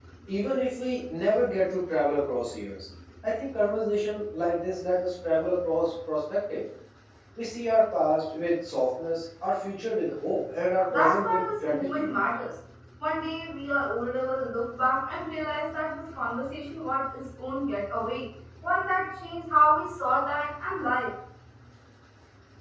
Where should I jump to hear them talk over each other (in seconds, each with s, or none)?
10.9 s